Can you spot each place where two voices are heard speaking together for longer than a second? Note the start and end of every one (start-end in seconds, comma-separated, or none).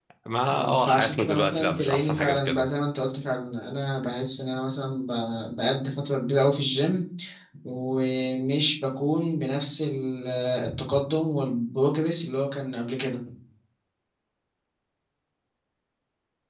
0.5-2.7